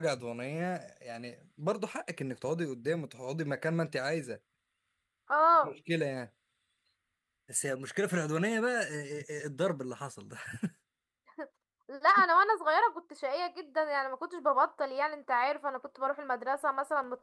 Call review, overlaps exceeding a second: none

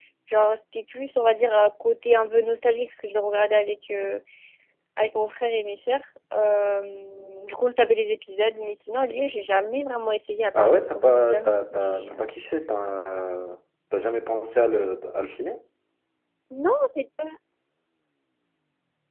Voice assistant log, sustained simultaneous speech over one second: present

